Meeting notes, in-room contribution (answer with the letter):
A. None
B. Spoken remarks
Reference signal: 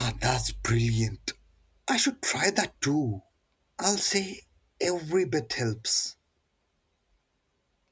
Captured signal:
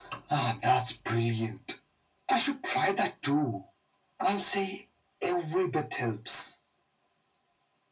A